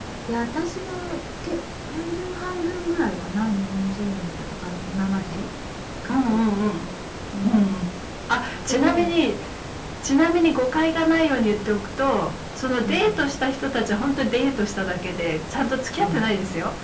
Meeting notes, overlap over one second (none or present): none